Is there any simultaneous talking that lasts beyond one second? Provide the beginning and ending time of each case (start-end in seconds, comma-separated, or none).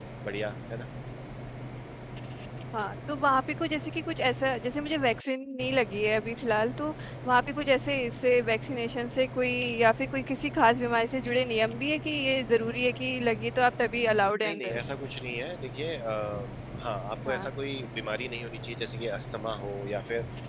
none